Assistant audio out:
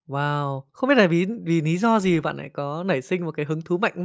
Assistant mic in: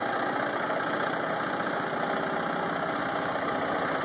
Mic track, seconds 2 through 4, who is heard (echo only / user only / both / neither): neither